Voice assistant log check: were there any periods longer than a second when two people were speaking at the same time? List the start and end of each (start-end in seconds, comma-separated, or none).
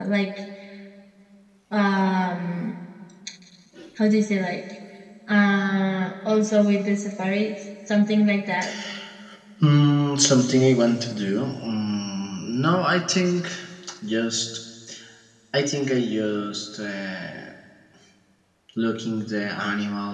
none